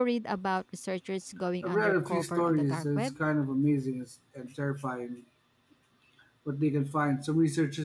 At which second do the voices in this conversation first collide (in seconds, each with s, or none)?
1.6 s